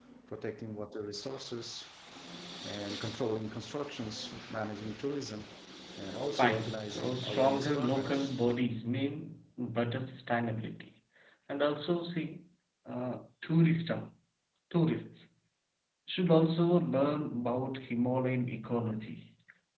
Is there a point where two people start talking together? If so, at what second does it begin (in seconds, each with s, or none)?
6.4 s